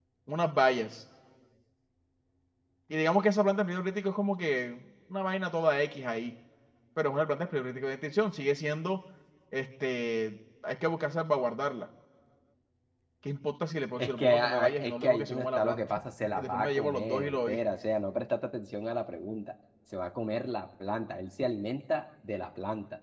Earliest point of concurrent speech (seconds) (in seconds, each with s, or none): 14.0 s